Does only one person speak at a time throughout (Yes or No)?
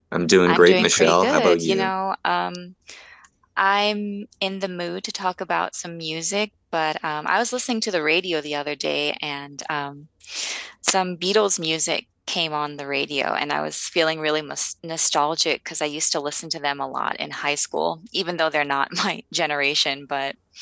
No